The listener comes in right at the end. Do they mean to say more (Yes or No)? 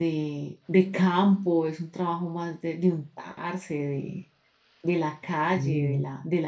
No